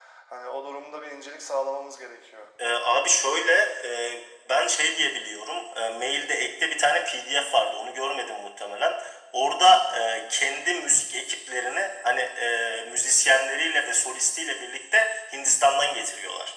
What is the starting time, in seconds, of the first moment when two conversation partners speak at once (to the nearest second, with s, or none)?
none